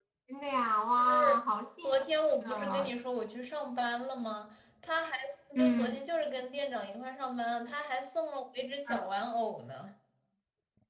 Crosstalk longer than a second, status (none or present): none